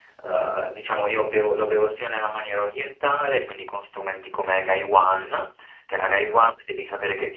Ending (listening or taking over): listening